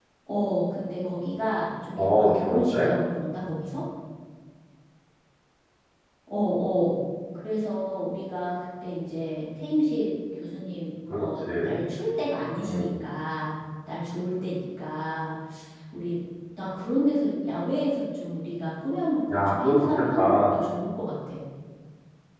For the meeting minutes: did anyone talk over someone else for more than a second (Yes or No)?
Yes